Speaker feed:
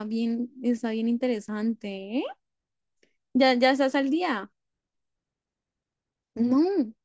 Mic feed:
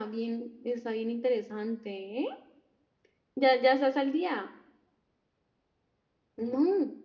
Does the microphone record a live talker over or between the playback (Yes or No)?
No